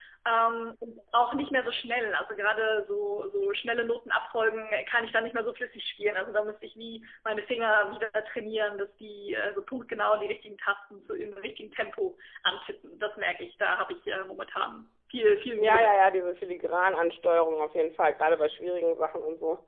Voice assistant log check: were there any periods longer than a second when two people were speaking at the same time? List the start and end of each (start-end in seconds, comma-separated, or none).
none